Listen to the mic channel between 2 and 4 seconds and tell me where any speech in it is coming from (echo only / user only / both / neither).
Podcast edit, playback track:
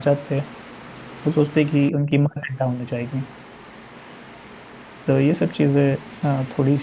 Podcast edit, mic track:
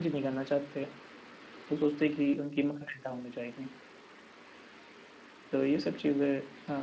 echo only